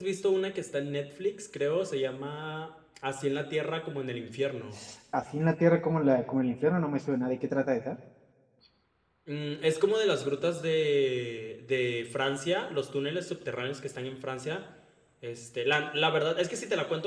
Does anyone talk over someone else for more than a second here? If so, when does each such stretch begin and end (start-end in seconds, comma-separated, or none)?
none